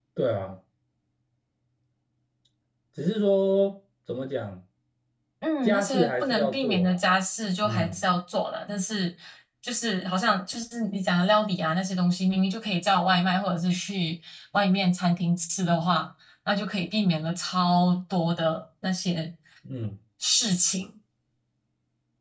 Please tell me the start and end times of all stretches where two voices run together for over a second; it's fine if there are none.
5.7-7.0

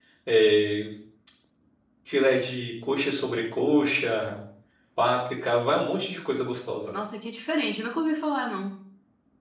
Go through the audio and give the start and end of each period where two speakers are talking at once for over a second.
none

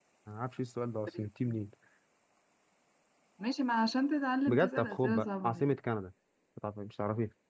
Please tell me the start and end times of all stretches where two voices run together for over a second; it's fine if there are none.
4.5-5.8

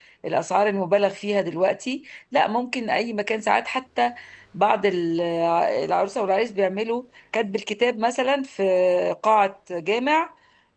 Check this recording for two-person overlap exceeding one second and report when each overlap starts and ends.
none

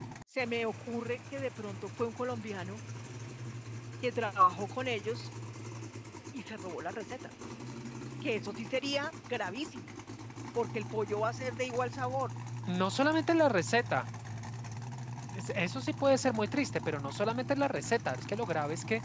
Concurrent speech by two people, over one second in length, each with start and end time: none

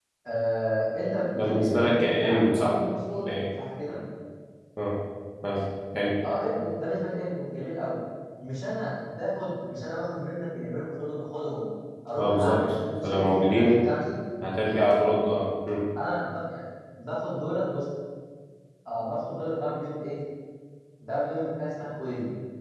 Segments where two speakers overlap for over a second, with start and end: 1.4-2.8, 12.2-13.8

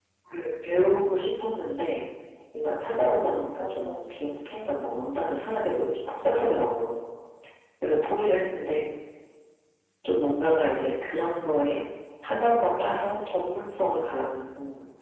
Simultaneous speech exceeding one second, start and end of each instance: 2.8-5.0

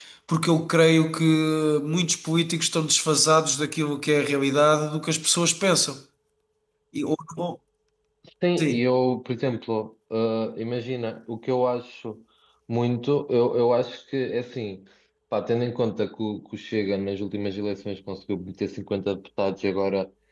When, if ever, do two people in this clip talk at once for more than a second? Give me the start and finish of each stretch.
none

